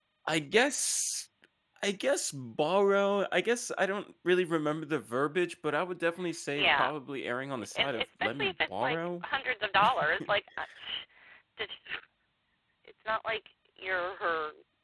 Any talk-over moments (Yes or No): Yes